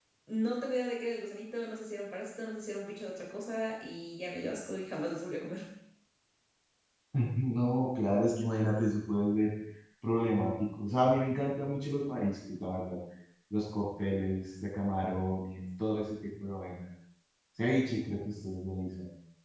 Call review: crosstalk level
none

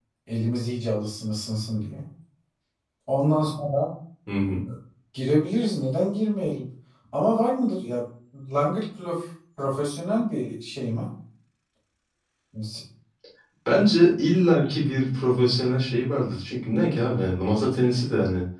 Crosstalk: none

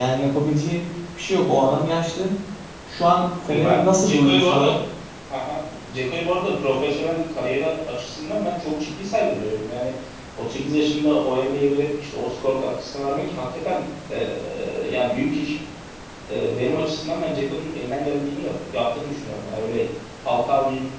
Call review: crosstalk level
present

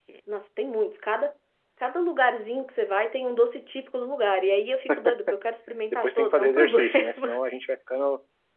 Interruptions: present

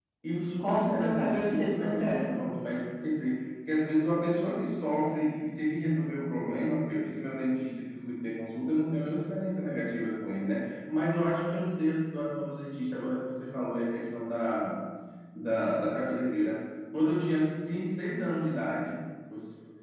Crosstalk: present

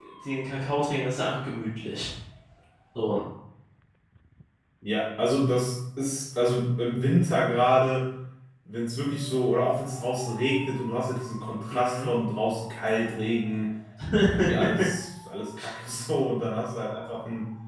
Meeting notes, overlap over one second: none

